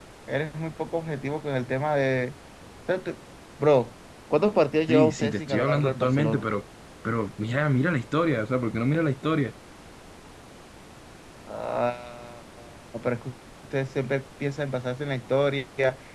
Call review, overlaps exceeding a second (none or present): present